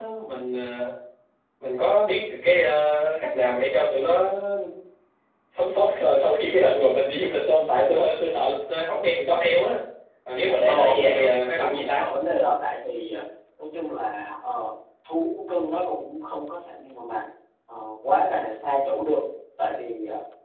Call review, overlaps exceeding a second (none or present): present